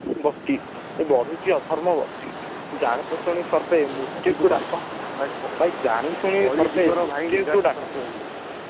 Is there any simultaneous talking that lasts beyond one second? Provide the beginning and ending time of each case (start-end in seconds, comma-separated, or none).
6.4-8.1